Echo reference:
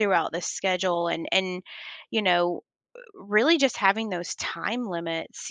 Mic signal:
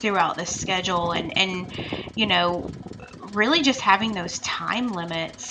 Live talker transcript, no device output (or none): none